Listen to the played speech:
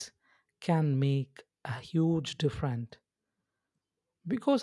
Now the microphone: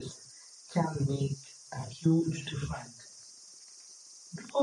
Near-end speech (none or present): none